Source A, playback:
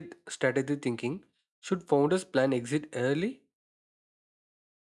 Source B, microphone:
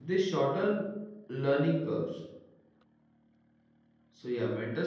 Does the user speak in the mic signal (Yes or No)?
Yes